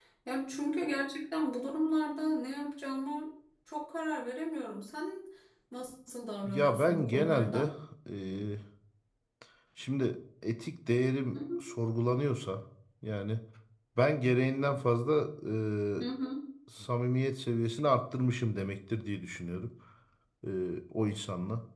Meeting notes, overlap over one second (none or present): present